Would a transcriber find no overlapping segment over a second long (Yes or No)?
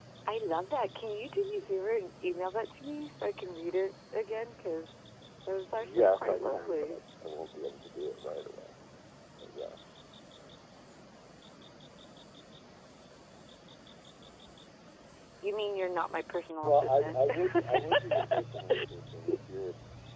No